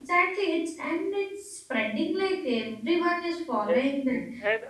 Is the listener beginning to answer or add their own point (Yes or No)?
Yes